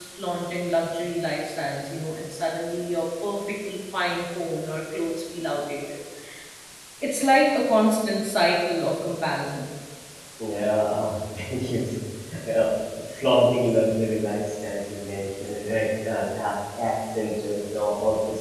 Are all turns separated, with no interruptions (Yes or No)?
Yes